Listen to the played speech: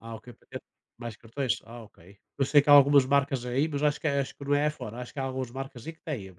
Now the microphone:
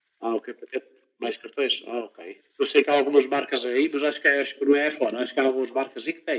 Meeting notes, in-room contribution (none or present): none